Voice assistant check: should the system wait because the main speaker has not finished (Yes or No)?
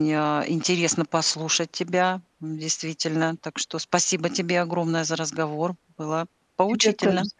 No